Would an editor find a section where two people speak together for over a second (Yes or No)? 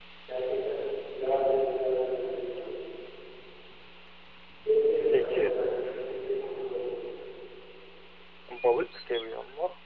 No